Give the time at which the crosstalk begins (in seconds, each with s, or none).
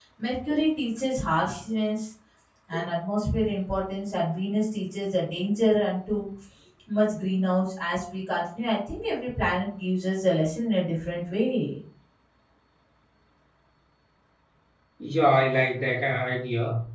none